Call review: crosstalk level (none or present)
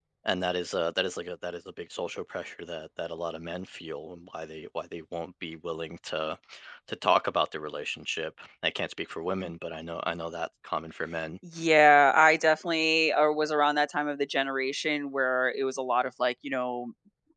none